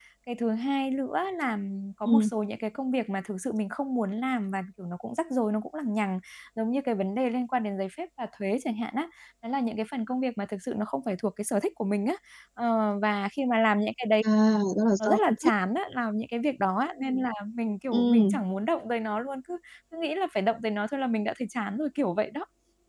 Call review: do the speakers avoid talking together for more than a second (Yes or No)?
Yes